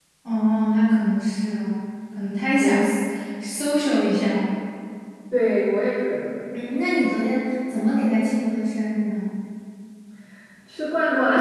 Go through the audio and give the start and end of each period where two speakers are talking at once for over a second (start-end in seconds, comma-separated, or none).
none